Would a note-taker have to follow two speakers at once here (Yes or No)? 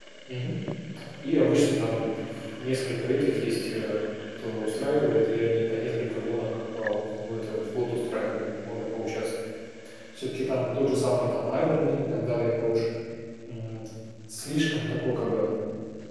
No